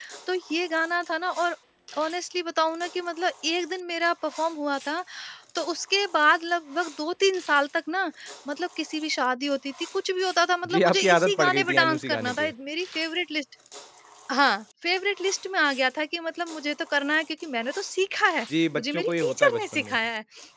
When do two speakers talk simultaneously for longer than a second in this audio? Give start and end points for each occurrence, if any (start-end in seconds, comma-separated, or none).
10.7-12.5, 18.8-20.0